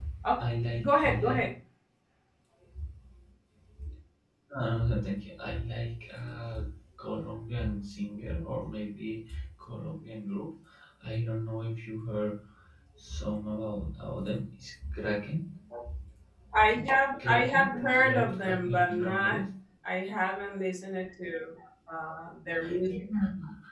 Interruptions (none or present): present